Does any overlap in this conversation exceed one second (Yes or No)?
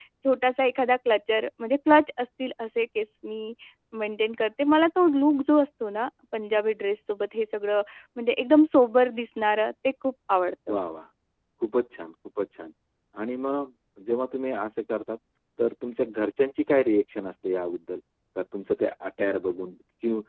No